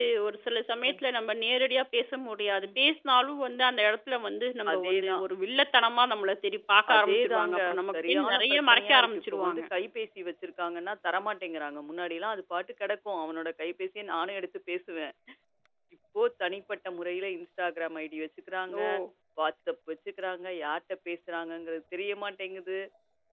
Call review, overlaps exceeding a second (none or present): present